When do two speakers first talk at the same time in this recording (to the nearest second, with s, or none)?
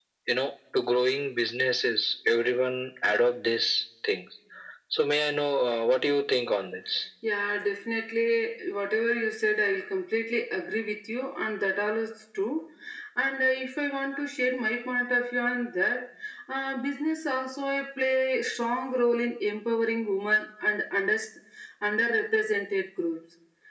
none